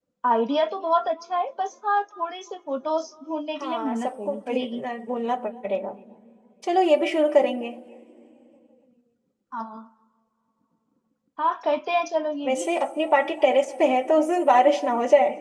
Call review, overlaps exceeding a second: present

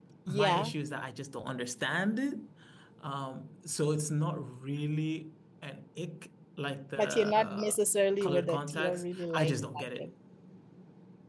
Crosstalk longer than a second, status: present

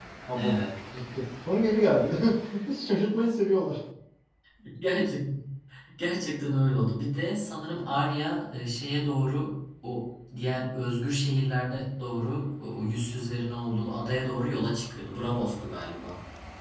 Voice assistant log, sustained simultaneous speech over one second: none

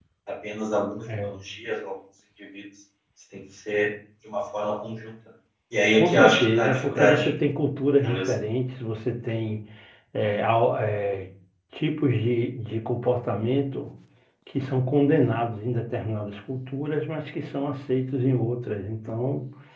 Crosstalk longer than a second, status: present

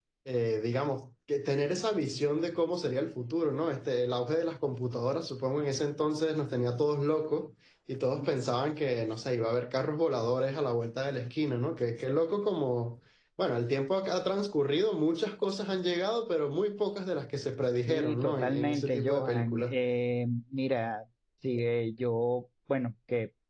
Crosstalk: present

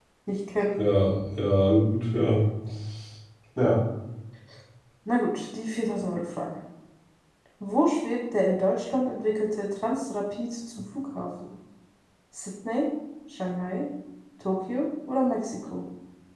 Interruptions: none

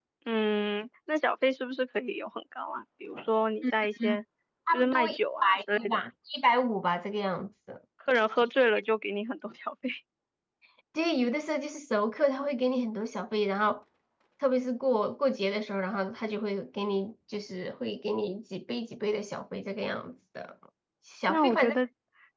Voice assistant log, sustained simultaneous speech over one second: present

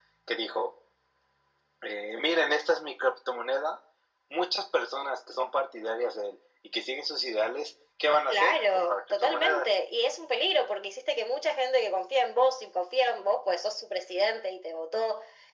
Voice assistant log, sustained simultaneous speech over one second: present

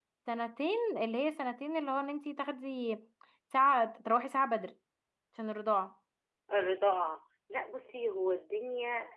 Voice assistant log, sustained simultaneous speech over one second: none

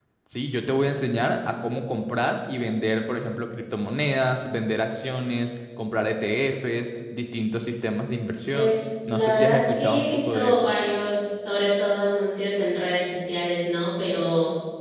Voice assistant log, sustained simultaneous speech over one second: present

